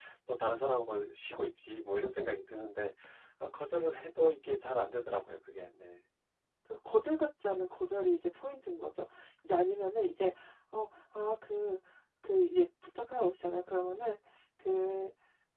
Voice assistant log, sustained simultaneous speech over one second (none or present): none